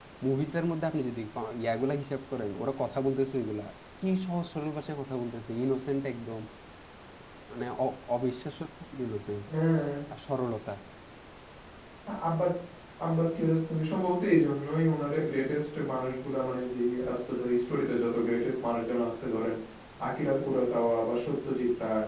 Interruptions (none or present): none